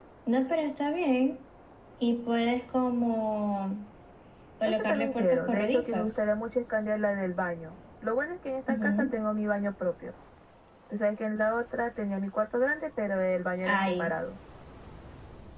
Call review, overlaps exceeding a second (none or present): present